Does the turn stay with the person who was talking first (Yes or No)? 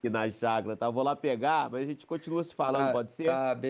No